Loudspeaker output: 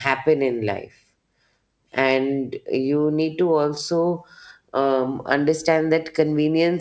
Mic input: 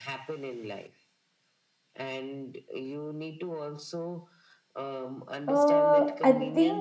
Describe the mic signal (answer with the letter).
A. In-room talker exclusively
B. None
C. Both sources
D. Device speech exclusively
C